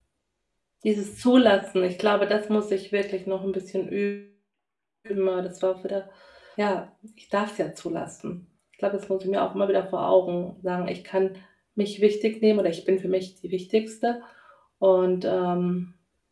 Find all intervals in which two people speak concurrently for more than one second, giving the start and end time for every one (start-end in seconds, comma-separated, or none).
none